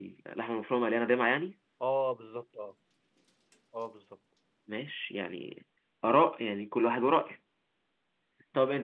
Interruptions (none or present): none